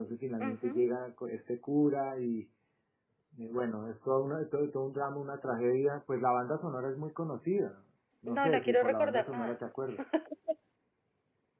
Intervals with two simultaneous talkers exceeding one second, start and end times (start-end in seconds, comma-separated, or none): 8.3-9.6